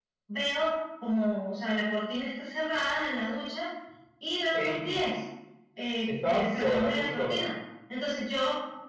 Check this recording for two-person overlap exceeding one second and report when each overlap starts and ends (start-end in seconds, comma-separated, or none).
6.2-7.4